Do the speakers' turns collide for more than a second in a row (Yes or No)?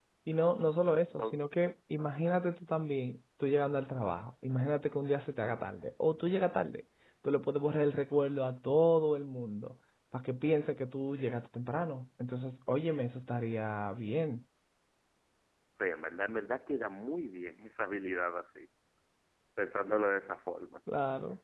No